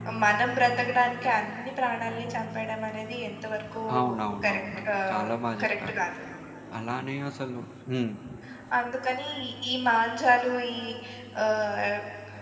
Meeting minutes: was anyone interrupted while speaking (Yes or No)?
Yes